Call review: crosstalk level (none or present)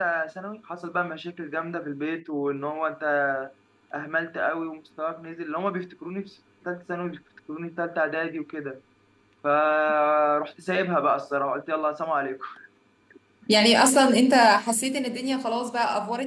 none